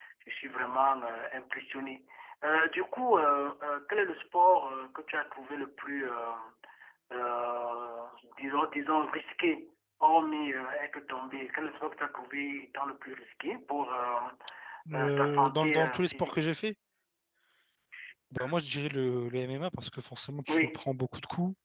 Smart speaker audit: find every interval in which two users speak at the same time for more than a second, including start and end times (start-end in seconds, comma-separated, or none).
15.0-16.4